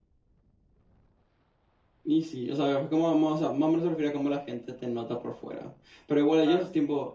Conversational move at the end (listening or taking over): listening